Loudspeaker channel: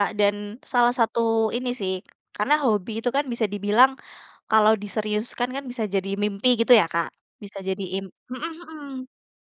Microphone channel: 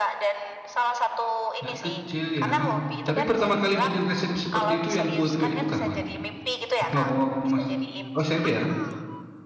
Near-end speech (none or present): present